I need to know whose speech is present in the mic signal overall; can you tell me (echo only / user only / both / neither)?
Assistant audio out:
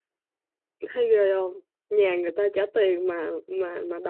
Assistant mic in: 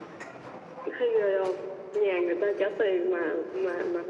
echo only